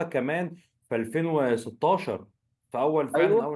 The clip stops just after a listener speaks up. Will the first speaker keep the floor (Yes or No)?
No